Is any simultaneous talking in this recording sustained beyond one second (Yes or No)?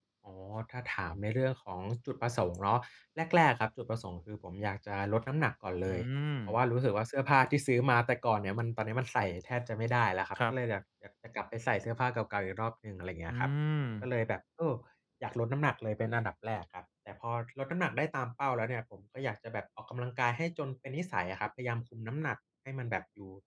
No